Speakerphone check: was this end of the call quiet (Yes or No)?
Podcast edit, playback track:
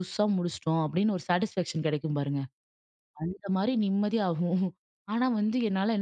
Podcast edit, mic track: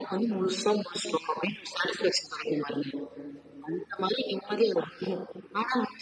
Yes